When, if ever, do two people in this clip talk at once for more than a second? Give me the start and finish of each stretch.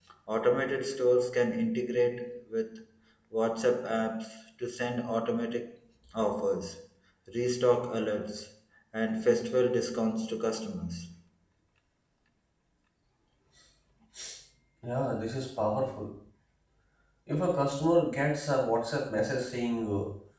none

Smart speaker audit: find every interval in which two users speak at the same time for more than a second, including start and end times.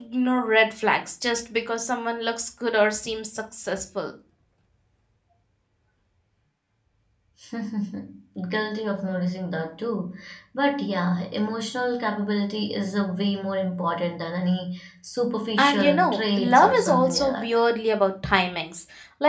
15.6-17.5

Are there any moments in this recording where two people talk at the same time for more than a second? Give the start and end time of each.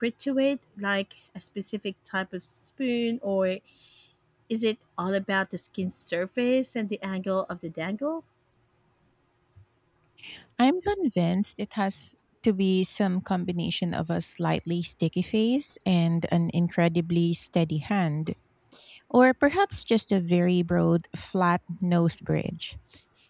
none

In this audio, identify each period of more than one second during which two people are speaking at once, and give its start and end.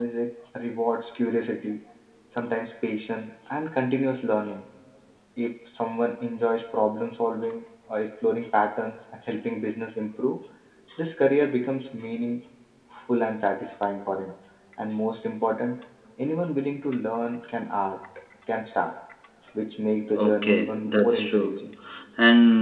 20.1-21.5

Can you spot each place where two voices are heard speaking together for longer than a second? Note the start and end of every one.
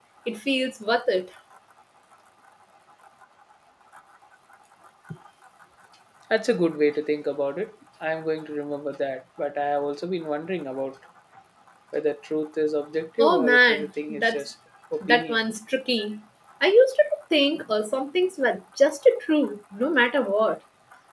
13.2-14.4

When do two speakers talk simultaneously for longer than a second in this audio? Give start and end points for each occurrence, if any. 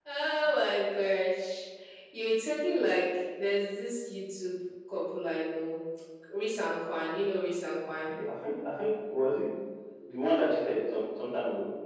none

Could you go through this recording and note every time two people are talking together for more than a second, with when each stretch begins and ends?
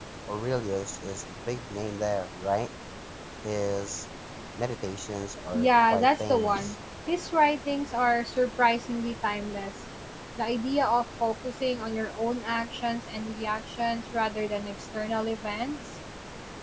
5.5-6.8

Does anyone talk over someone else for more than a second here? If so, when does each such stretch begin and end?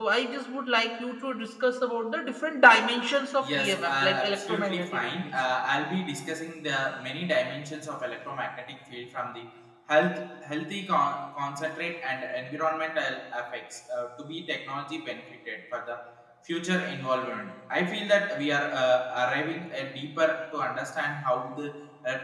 3.4-5.3

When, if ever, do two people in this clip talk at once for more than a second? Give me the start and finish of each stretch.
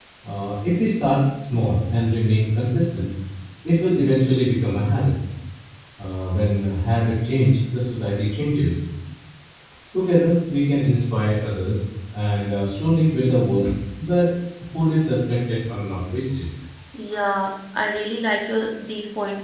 none

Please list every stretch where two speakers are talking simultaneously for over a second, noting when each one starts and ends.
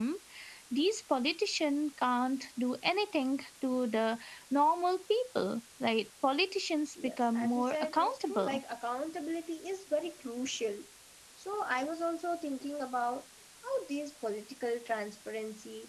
7.0-8.6

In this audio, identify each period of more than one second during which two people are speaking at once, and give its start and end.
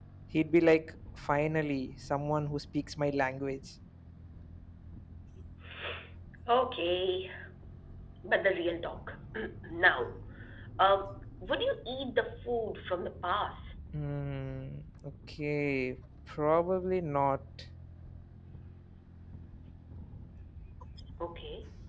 none

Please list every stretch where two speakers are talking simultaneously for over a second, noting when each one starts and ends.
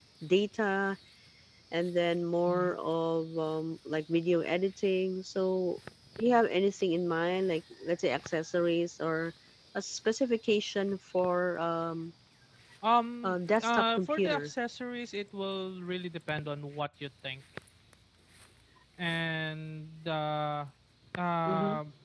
13.2-14.5

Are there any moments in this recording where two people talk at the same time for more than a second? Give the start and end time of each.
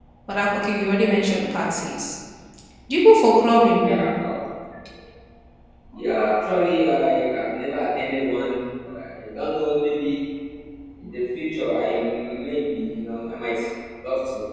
none

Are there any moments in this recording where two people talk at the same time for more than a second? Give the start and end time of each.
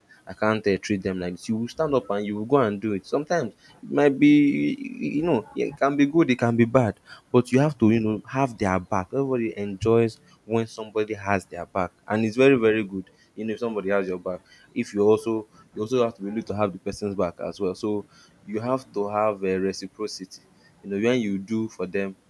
none

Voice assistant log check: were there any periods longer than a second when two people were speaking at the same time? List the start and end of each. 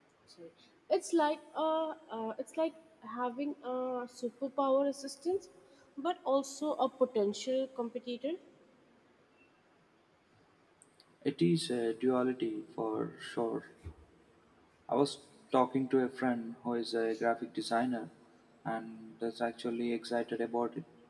none

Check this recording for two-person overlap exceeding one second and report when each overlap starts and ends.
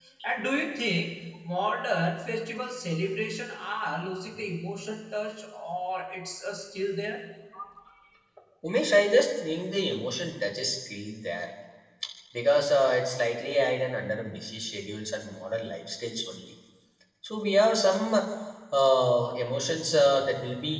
none

